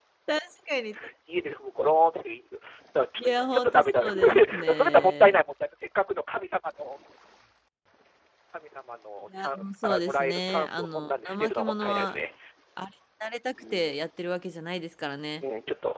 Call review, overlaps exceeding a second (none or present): present